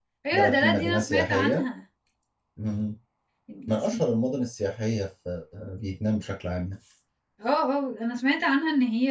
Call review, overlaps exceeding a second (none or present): present